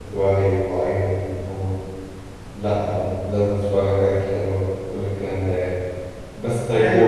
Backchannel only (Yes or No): Yes